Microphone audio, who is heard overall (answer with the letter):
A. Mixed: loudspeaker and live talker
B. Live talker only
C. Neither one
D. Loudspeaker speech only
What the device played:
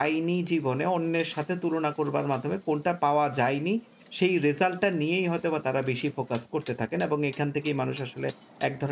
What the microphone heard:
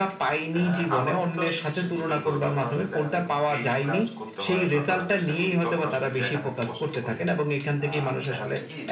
A